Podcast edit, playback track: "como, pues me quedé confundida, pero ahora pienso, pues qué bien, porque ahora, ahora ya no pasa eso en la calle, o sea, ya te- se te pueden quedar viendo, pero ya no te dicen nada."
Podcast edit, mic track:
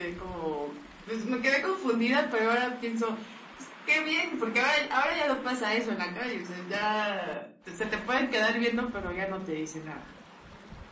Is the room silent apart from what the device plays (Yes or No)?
Yes